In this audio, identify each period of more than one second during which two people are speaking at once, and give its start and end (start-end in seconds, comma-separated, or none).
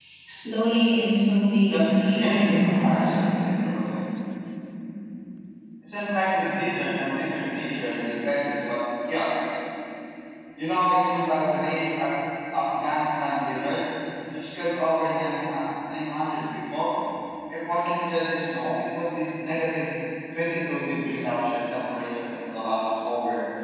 1.7-3.1